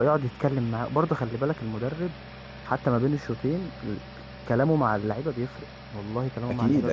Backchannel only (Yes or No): No